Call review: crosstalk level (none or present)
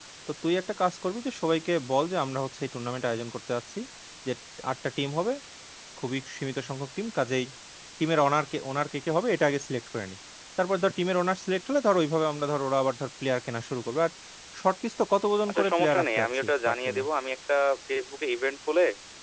present